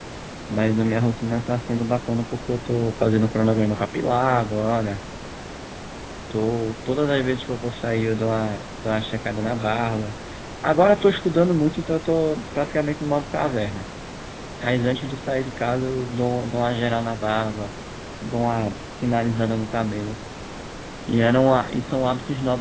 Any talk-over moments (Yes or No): No